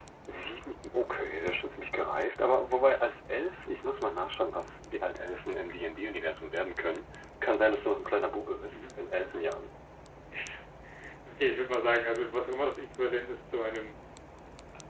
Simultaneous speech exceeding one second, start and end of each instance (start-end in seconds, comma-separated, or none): none